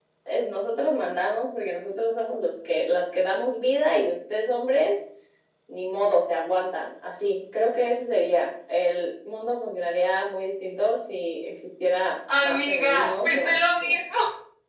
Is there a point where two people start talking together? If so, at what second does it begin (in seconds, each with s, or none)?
12.3 s